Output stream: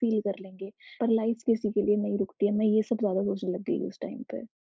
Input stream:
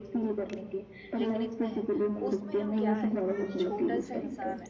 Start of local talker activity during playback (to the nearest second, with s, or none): 1 s